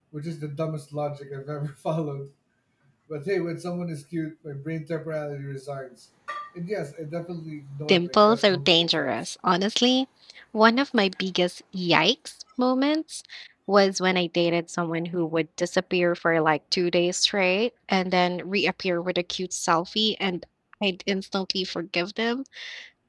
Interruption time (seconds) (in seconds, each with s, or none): 7.9 s